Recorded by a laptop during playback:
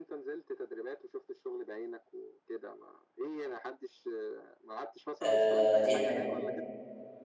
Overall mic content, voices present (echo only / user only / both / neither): both